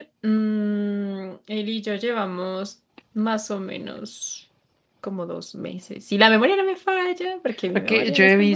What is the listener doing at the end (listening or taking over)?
taking over